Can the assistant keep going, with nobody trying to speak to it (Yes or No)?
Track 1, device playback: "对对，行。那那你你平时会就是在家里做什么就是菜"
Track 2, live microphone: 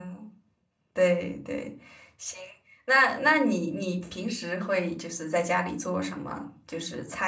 Yes